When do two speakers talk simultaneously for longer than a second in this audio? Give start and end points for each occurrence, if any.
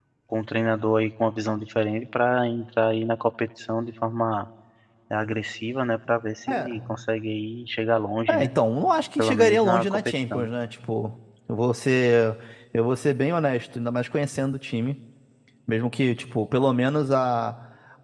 9.2-10.5

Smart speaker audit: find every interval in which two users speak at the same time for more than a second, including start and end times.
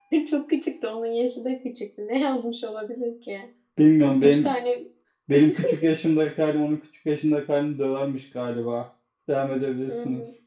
none

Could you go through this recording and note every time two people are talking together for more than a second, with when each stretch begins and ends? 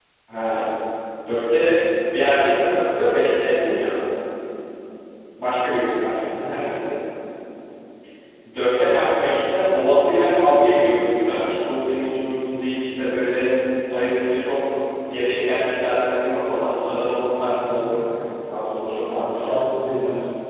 none

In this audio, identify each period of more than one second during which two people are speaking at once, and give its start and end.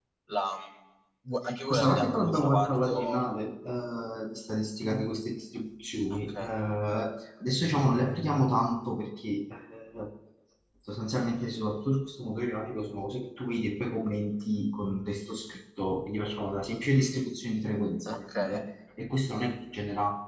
1.7-3.2

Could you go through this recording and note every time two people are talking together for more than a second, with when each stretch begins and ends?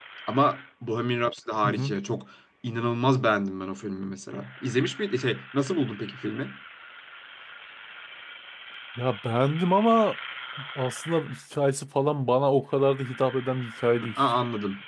none

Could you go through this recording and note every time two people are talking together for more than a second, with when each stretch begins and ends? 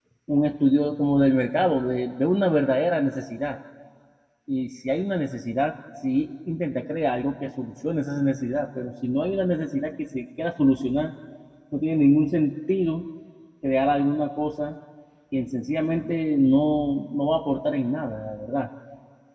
none

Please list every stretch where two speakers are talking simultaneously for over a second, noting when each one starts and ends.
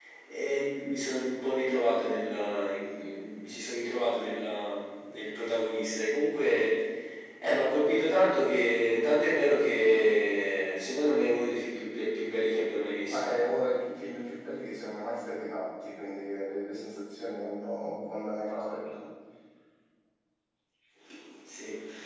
none

